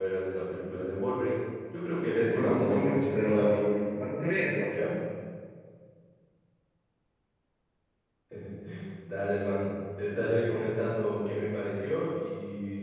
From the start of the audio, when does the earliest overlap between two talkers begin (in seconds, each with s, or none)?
2.3 s